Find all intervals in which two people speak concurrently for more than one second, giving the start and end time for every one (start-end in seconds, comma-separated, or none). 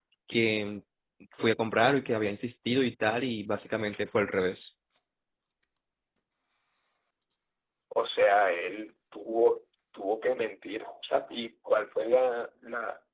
none